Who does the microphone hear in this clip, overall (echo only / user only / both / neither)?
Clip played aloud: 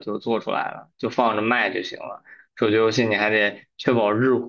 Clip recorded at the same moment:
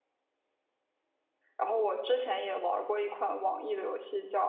user only